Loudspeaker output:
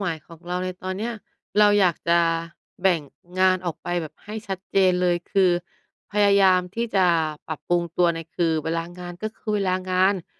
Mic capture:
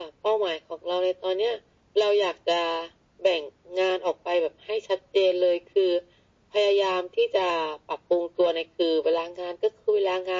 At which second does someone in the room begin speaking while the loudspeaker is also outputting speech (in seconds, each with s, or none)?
none